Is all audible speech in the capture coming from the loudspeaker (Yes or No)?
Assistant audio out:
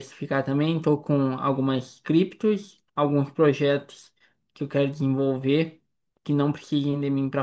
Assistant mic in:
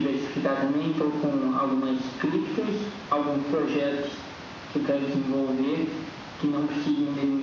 Yes